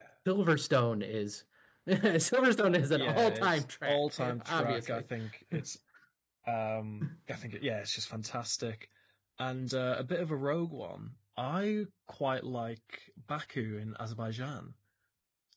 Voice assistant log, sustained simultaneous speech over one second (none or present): present